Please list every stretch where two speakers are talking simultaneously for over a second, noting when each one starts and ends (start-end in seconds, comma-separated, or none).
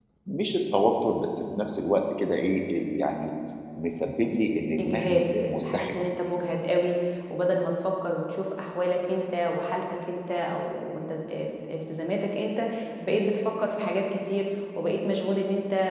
4.8-6.0